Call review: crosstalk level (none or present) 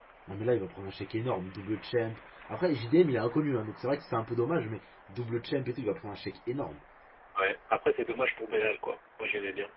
none